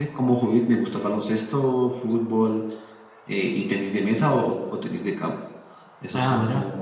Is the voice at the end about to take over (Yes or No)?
No